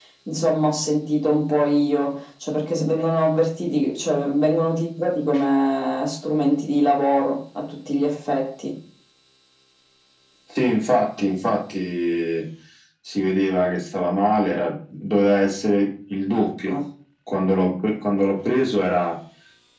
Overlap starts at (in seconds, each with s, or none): none